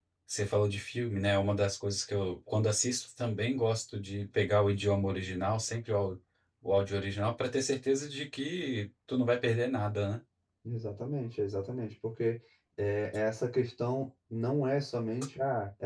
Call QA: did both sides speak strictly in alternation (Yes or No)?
Yes